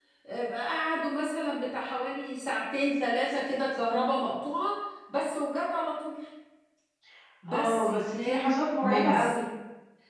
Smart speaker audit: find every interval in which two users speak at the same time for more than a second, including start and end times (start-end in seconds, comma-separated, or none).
7.5-9.4